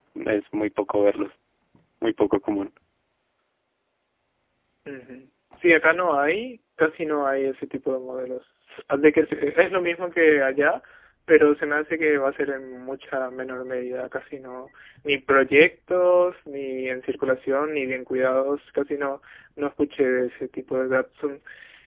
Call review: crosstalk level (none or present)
none